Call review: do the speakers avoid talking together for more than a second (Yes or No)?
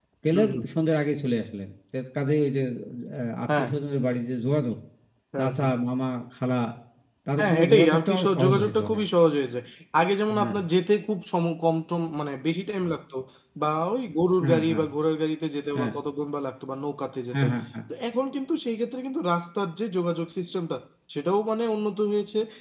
No